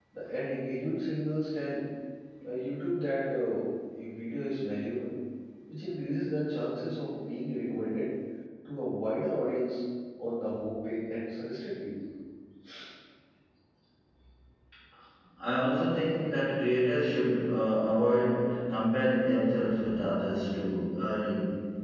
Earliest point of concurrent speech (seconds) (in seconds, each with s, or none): none